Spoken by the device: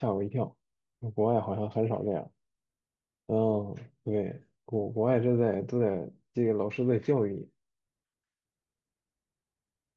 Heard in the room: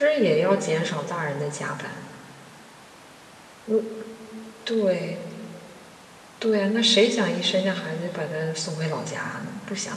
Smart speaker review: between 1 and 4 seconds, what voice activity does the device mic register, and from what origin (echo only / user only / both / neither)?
user only